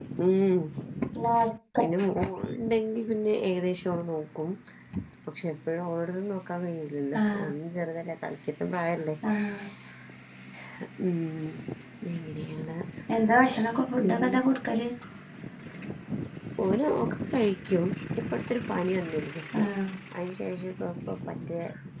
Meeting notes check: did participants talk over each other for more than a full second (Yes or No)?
No